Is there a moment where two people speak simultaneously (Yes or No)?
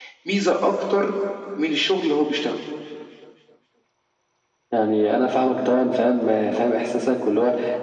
No